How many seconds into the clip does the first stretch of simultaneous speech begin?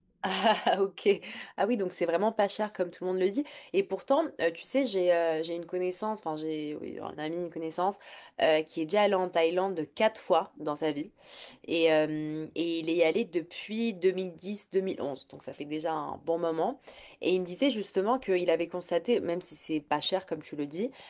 none

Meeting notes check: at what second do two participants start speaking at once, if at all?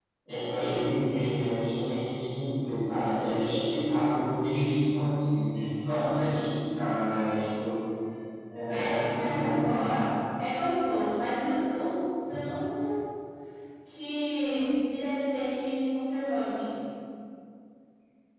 9 s

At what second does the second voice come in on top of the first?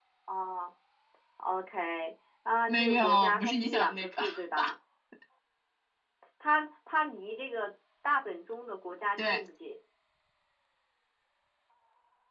3 s

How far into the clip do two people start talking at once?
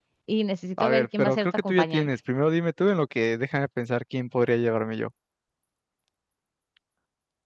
1 s

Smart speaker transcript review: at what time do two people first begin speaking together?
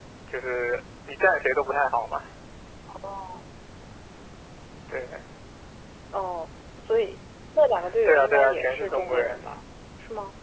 8 s

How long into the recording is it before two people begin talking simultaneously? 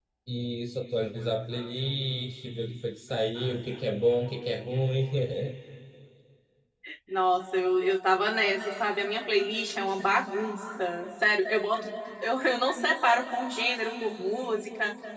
none

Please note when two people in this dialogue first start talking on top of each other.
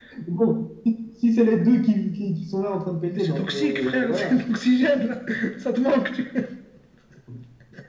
3 s

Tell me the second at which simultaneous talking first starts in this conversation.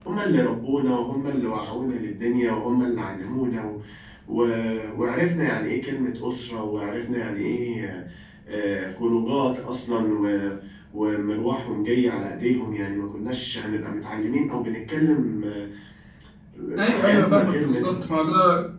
17 s

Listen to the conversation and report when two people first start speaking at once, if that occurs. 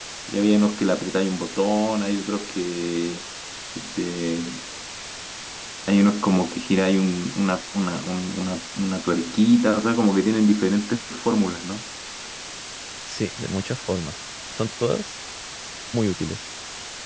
none

